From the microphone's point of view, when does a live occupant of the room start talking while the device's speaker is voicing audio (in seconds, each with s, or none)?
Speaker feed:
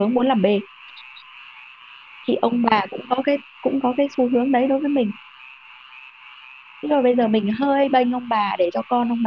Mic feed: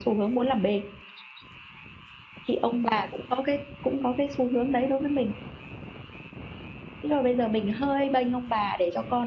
none